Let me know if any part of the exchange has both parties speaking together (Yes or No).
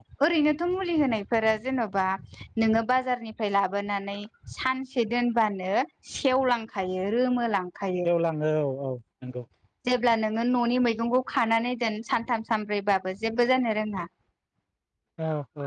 No